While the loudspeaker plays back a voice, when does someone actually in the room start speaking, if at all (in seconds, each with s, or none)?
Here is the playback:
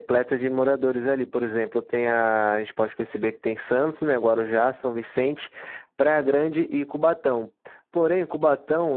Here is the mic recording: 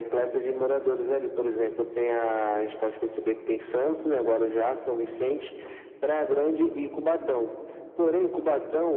none